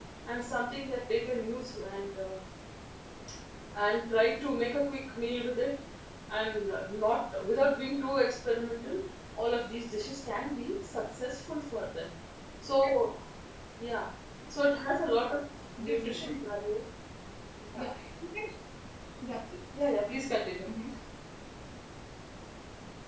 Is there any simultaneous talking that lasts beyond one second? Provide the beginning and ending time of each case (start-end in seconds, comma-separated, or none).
none